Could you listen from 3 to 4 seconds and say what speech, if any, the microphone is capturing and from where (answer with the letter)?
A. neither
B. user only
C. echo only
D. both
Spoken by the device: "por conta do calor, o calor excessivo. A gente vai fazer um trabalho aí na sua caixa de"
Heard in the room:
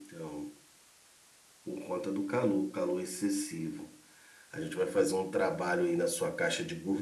C